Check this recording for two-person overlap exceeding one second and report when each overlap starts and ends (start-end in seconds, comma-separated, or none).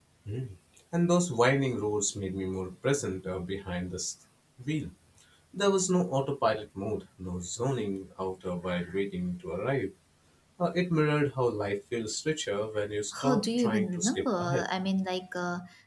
13.2-14.7